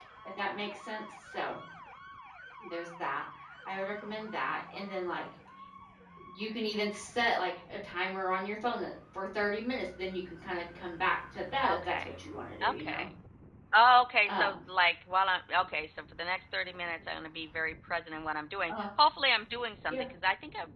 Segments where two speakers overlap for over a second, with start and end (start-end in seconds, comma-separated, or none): none